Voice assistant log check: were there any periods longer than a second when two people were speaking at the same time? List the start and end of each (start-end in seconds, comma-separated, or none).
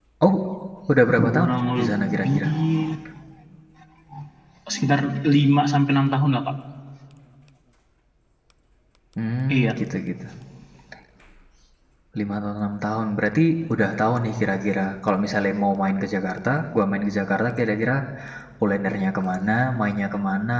1.2-2.5